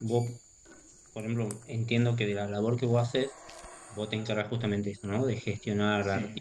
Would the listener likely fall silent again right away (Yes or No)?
Yes